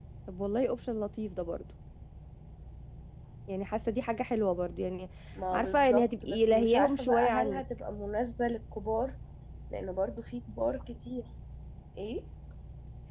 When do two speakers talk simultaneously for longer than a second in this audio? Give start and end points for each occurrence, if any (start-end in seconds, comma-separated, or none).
5.5-7.6